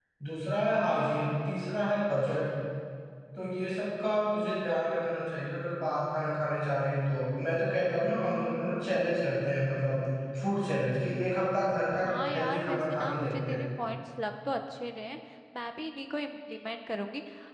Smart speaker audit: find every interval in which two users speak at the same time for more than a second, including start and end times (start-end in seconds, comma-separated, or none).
12.1-13.6